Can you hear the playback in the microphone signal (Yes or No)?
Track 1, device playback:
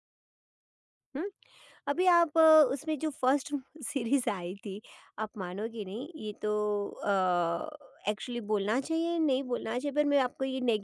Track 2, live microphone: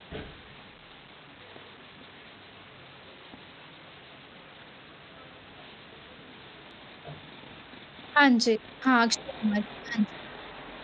No